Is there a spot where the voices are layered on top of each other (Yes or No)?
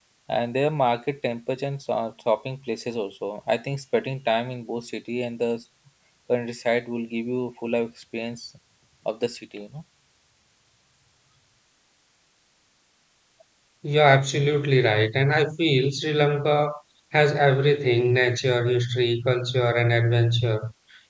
No